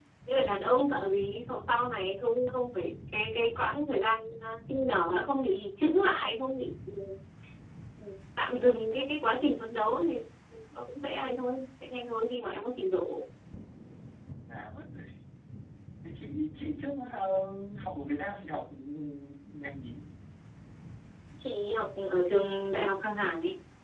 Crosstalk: none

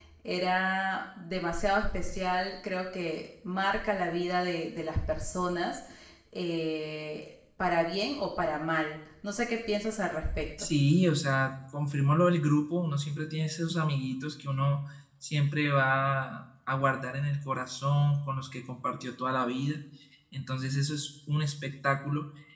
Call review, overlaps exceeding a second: none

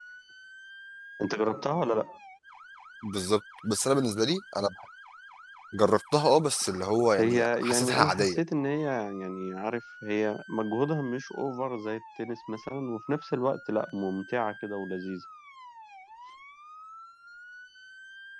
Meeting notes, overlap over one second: present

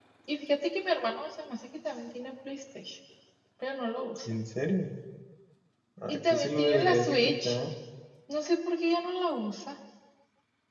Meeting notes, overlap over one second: present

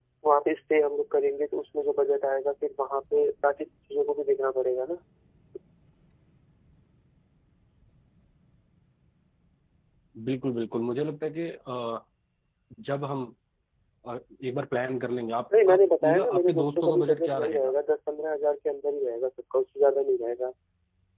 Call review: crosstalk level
present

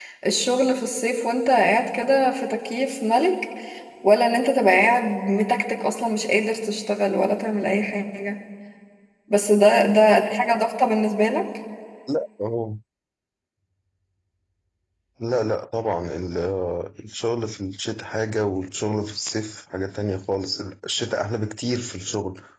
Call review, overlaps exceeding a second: none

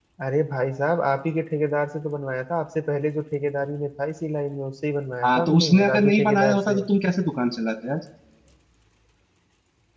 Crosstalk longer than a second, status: present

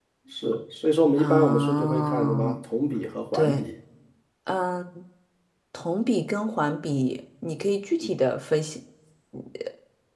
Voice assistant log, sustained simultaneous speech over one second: present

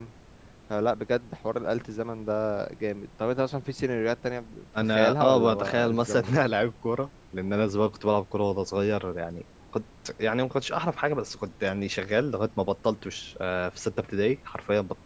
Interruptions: present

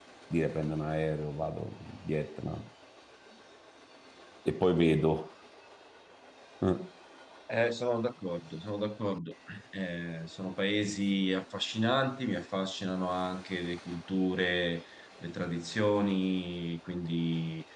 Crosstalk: none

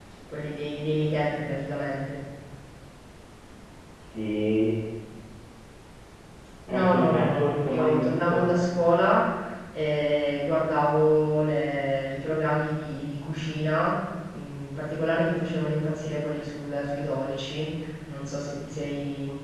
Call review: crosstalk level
present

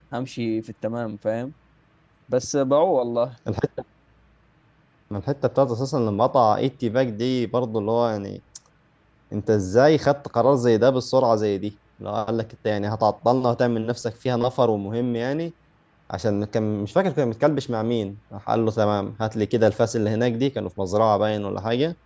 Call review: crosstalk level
none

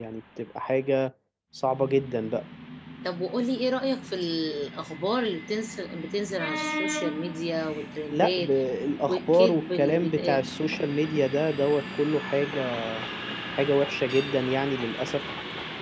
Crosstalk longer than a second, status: present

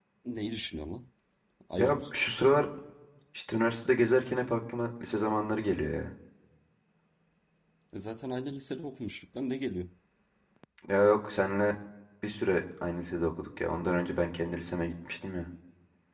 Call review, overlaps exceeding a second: none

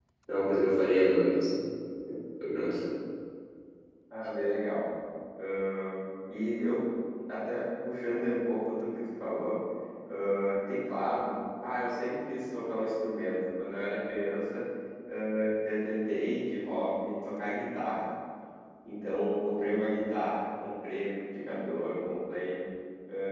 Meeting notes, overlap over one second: none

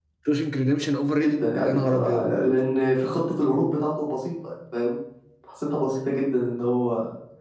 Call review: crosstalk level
present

